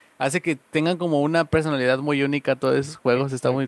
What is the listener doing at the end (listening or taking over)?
taking over